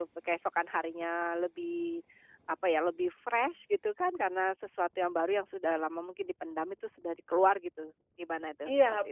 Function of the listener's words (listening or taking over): taking over